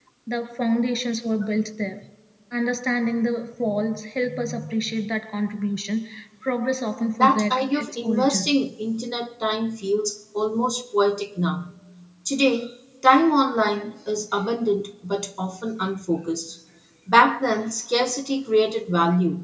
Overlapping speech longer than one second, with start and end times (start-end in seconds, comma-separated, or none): 7.2-8.5